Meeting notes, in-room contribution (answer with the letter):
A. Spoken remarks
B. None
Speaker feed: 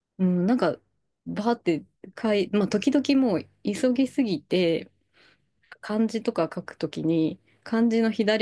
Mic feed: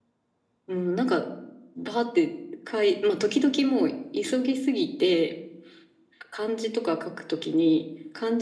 B